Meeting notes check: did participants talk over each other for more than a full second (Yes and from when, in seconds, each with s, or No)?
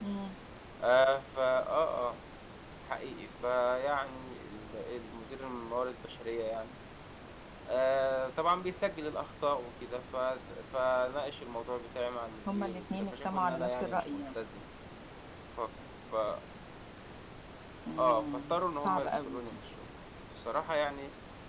Yes, from 12.5 s